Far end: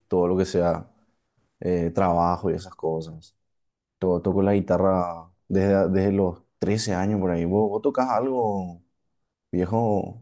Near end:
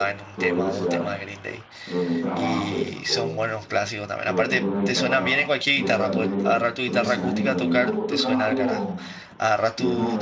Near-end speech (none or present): present